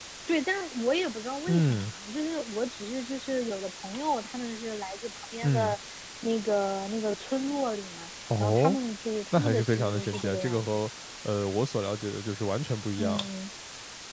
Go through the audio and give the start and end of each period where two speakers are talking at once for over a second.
9.3-10.9

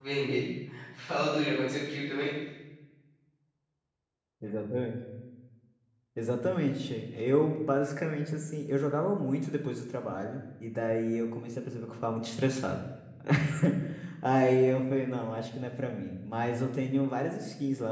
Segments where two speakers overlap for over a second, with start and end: none

